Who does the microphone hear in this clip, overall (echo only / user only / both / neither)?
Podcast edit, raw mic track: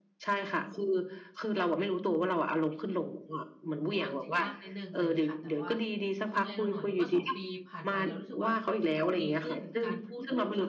both